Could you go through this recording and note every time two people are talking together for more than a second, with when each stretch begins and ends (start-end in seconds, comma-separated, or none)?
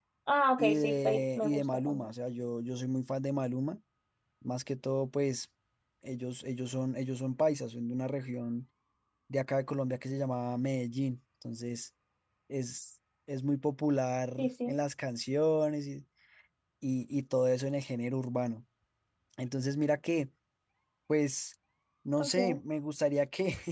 0.6-2.1